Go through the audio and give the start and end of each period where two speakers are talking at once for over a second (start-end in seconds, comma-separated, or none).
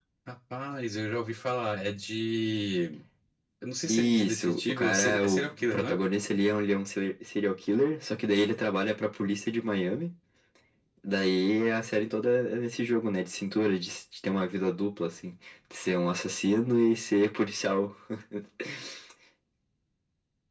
3.8-6.0